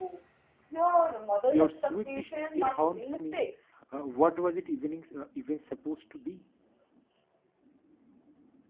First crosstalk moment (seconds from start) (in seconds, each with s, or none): 1.5 s